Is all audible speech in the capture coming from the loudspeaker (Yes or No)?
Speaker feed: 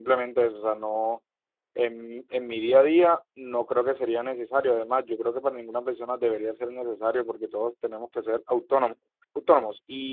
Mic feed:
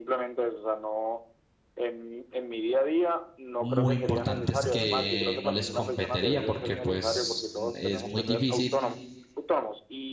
No